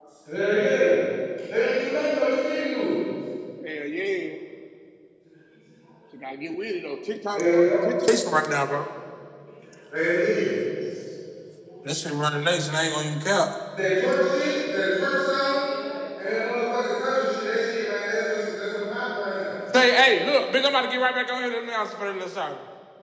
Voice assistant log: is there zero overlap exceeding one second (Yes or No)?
Yes